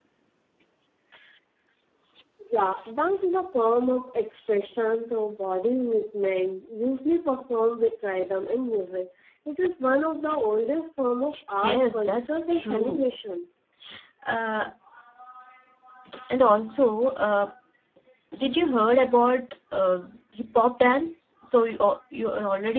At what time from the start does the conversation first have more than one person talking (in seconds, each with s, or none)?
11.6 s